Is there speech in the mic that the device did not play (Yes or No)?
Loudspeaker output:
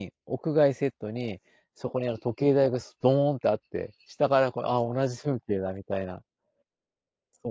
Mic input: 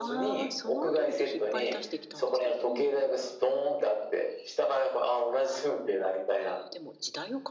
Yes